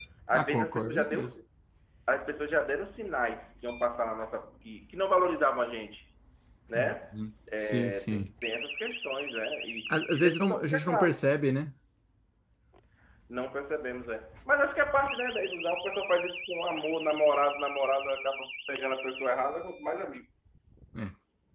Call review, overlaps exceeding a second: present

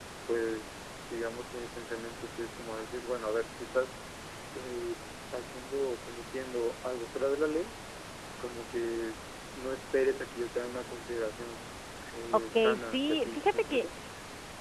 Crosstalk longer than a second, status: present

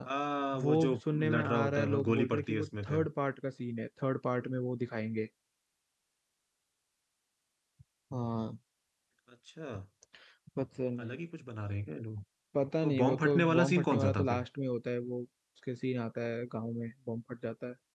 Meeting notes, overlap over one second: present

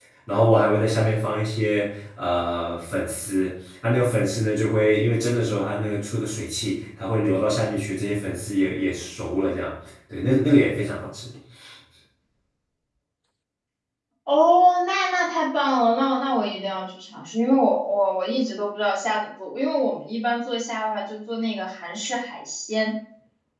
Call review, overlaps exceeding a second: none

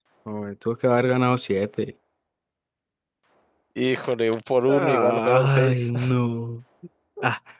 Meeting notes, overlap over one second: present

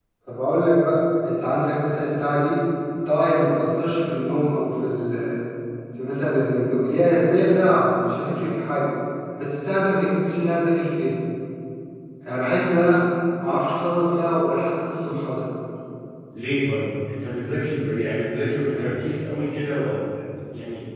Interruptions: none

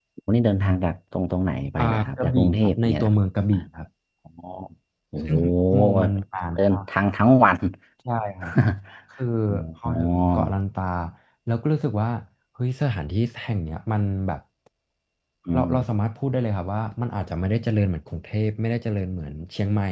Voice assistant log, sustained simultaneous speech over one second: present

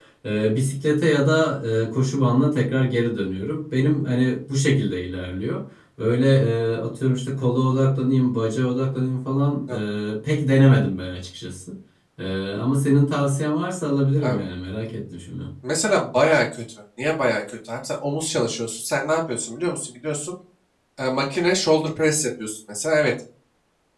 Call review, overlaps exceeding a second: none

